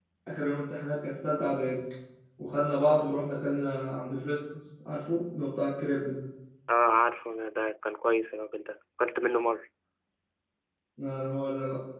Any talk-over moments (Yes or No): No